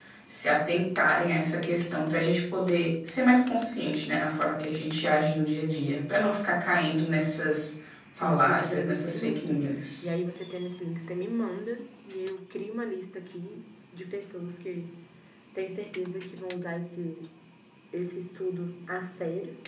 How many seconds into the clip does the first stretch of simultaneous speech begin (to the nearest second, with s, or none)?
8 s